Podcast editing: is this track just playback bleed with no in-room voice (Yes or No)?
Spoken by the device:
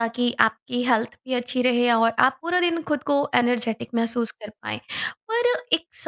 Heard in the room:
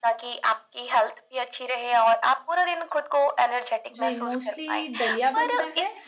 No